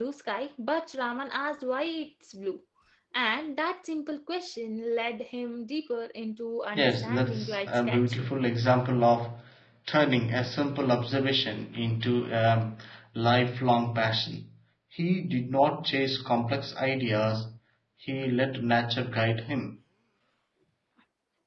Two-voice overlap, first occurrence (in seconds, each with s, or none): 6.8 s